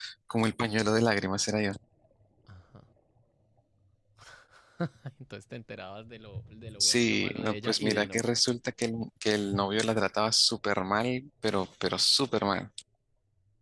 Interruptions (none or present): present